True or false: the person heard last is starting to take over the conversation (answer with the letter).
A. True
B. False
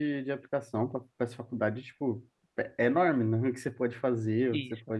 A